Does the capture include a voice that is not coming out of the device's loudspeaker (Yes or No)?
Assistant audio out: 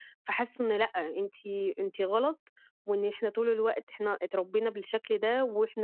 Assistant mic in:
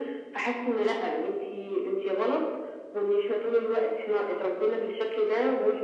No